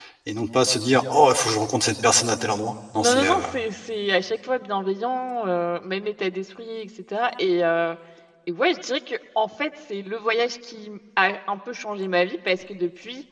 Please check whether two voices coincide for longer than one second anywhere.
No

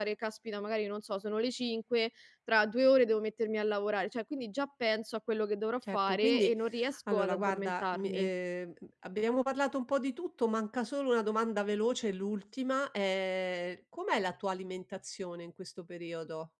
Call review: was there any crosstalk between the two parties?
Yes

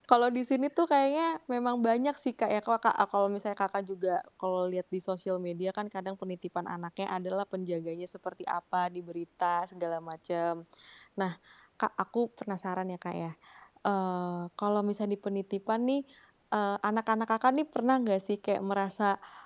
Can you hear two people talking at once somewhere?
No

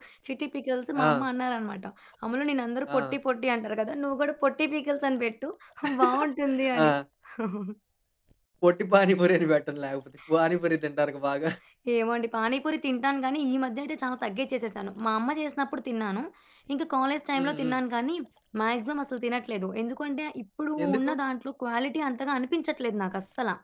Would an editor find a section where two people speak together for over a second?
No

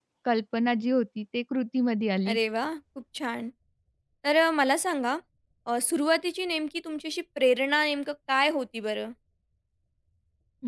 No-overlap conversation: Yes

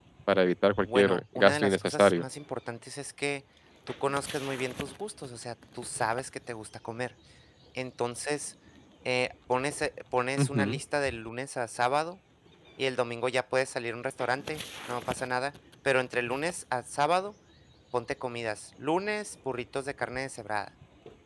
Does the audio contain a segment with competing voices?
Yes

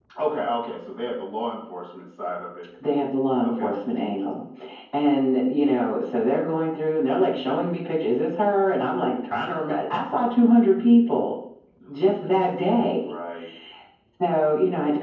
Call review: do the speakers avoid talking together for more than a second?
Yes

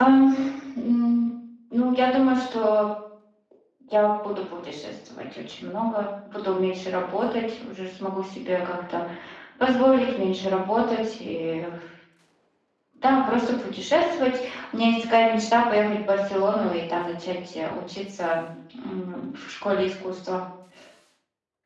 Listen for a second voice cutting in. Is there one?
No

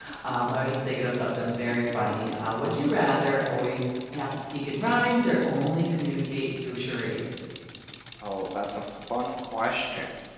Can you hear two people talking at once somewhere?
No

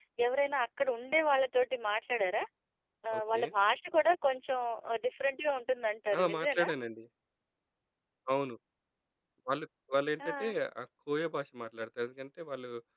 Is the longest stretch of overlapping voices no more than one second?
Yes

